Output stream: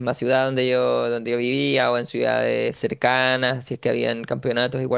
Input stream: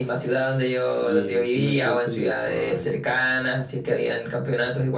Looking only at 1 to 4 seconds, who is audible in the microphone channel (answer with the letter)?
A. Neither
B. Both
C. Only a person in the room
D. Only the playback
B